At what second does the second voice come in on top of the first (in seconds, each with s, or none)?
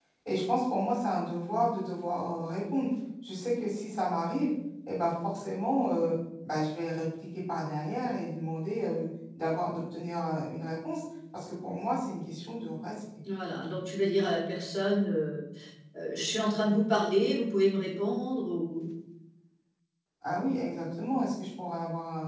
none